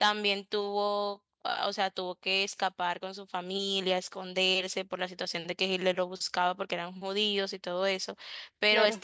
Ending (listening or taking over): listening